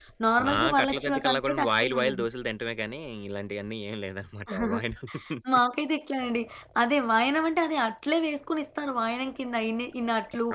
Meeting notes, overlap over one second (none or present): present